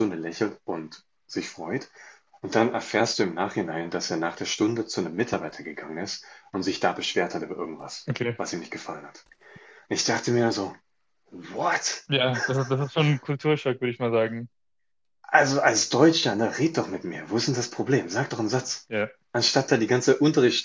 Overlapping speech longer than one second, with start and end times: none

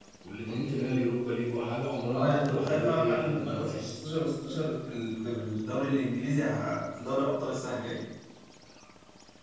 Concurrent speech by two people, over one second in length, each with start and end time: 2.1-3.9

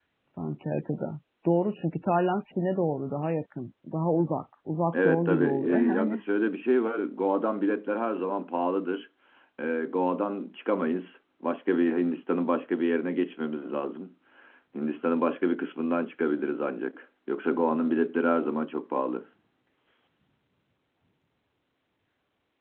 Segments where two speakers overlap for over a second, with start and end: 4.9-6.2

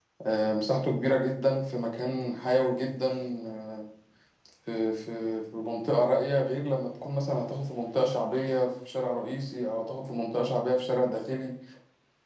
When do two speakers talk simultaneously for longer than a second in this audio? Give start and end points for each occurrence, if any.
none

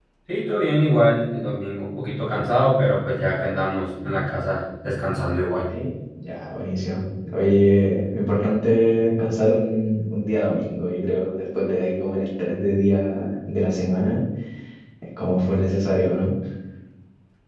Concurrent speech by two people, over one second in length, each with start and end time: none

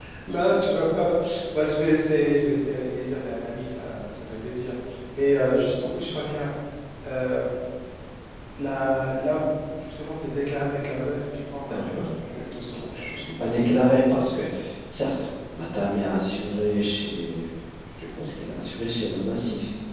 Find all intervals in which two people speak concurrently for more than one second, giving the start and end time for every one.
11.7-13.1

